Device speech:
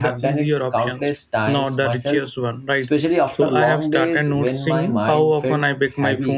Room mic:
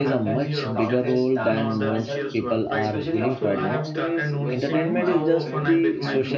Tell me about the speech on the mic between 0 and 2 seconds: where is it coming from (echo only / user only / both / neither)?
both